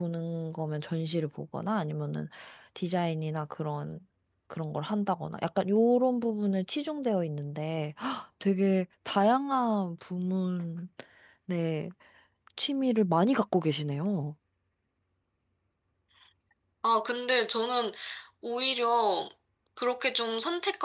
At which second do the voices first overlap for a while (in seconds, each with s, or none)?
none